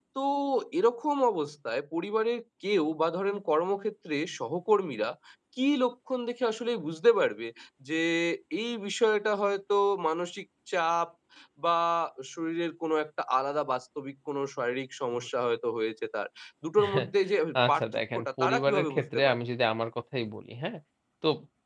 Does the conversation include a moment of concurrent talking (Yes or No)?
Yes